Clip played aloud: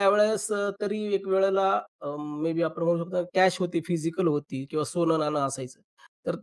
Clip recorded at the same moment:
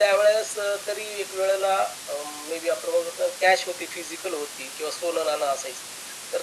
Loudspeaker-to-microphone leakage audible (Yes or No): Yes